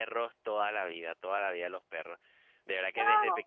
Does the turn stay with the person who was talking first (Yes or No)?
Yes